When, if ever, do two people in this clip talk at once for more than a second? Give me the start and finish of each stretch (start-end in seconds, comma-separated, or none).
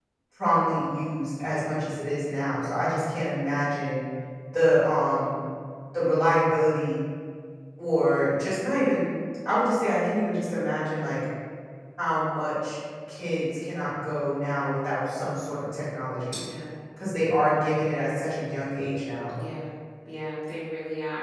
none